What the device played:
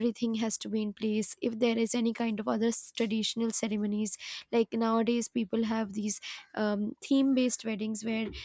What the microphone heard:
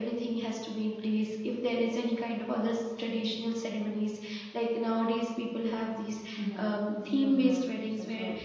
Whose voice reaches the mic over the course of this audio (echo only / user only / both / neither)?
both